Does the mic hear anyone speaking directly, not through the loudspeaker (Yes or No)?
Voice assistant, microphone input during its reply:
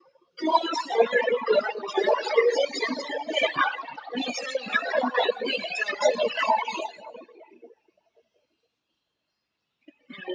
No